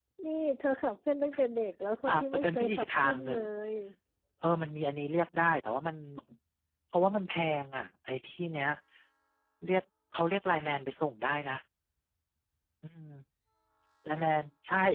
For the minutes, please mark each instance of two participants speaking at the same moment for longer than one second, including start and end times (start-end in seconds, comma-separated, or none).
2.1-3.3